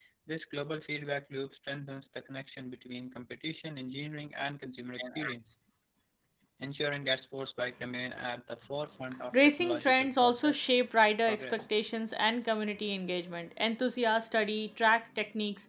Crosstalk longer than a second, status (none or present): present